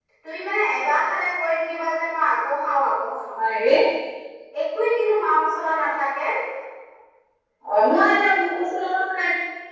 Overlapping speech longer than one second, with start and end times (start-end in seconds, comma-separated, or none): none